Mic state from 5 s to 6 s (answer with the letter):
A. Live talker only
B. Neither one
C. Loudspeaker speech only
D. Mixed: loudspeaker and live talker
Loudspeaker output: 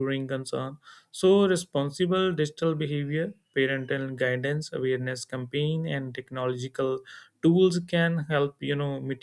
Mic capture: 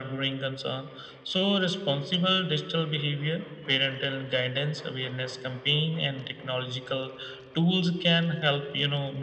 C